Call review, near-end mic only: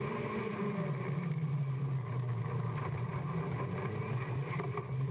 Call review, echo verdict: none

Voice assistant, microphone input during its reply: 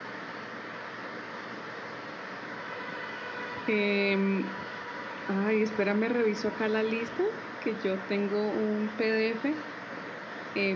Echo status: none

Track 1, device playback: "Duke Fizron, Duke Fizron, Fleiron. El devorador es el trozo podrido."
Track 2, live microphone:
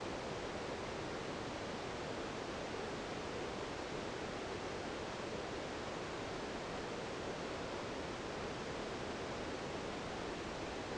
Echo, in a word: none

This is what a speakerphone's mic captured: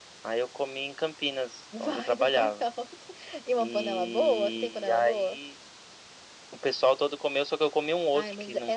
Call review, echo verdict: present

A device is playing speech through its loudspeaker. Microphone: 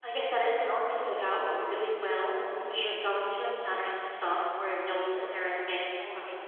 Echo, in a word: none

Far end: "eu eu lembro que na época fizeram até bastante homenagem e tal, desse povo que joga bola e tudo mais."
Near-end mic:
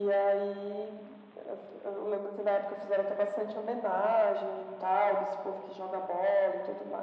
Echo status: present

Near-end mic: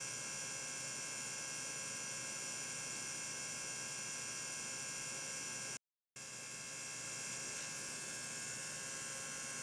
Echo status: none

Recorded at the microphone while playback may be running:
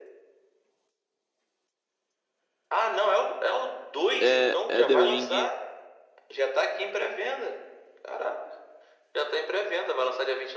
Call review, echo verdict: present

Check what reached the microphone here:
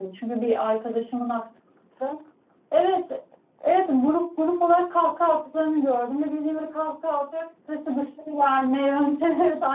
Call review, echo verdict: none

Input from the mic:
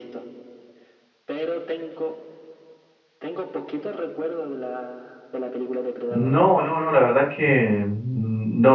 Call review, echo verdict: present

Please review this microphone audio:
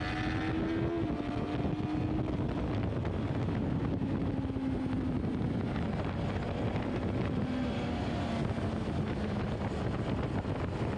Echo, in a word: none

